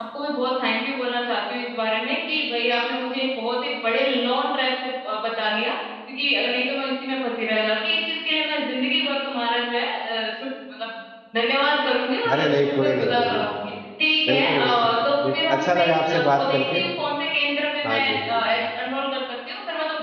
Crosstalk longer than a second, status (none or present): present